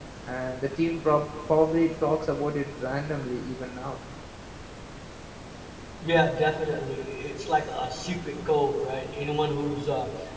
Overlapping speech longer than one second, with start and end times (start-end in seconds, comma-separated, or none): none